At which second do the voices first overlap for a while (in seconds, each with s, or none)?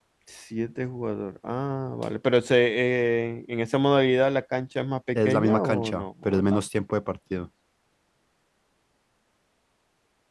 5.2 s